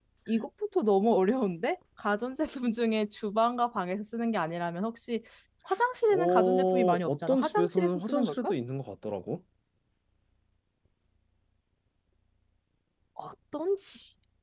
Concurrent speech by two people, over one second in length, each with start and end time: 6.1-8.5

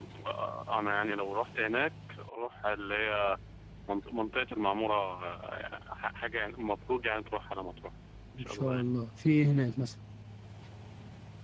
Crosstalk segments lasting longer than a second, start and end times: none

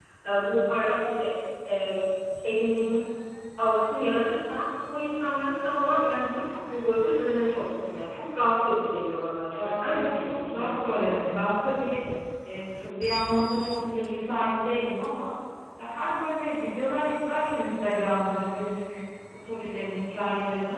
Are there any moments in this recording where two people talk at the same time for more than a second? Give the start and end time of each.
9.6-11.1

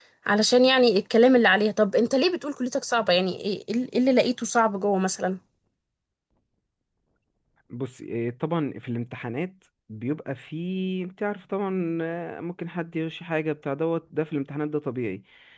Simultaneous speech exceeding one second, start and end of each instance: none

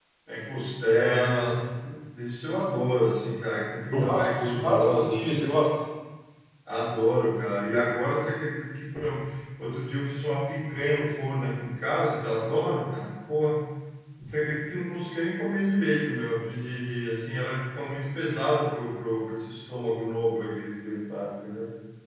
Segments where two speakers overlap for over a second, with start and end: 3.9-5.5

